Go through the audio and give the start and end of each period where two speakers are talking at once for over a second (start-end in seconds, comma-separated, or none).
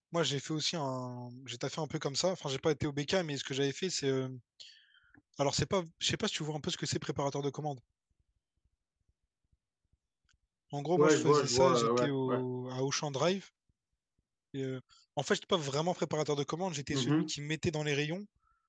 11.0-12.4